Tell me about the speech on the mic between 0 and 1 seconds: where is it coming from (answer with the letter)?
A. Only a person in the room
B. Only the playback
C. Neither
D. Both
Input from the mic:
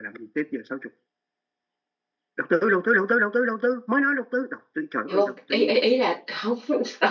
B